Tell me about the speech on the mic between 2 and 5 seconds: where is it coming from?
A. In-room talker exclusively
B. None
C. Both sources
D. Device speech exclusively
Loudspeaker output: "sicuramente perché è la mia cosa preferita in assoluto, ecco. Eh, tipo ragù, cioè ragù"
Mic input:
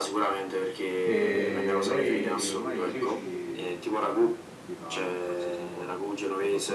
C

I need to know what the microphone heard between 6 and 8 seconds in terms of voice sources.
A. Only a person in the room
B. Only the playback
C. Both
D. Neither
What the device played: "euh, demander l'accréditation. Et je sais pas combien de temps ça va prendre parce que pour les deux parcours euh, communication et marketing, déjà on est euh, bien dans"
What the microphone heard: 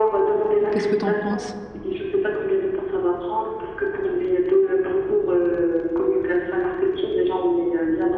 B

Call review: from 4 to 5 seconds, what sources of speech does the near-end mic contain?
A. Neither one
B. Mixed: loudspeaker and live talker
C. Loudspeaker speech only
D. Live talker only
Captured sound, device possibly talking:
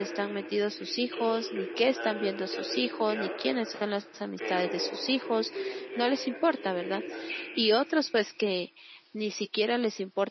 B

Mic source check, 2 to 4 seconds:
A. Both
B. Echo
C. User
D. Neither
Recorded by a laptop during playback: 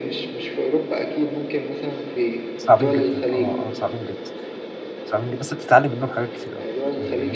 A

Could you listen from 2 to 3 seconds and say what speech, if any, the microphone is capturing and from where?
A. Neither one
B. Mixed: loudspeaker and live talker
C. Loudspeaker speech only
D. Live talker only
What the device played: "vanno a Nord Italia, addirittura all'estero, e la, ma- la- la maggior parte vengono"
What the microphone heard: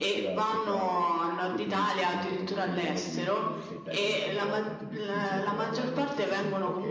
B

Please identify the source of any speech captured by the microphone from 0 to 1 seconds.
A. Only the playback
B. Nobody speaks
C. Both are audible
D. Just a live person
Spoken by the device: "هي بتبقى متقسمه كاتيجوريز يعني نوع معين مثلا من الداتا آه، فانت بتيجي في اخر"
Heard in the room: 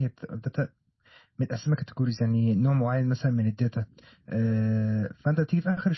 A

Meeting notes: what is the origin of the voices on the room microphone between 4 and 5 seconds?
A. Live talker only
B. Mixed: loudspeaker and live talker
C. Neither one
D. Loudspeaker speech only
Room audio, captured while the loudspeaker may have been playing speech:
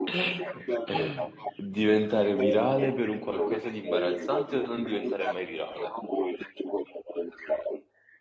B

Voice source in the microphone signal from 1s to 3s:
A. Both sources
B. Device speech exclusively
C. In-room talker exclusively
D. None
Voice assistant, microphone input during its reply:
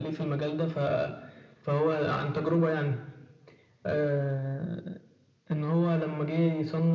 B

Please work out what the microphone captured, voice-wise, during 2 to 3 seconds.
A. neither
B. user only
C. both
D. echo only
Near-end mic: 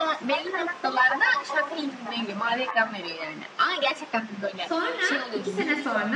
D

